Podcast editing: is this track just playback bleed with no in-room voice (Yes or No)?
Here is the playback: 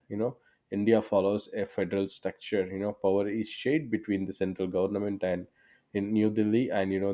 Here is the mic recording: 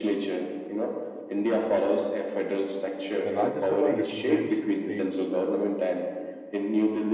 No